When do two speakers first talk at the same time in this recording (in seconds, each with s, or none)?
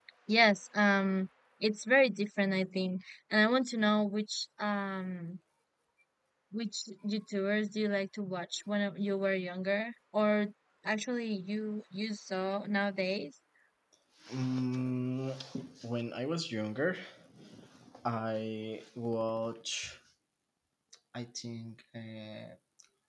none